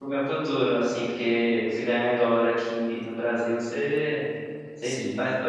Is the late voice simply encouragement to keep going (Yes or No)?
No